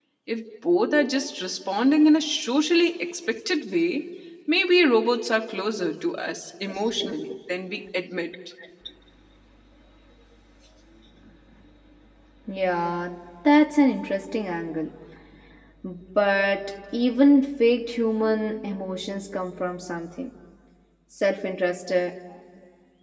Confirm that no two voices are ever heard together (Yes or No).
Yes